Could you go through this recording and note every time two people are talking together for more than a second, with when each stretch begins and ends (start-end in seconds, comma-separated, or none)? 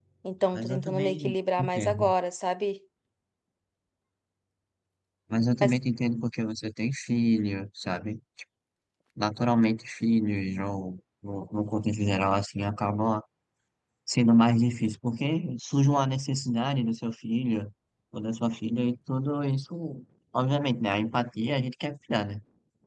0.5-2.1